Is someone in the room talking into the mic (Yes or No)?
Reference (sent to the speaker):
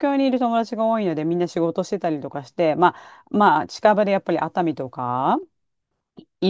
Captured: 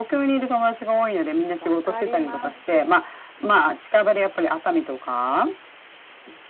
Yes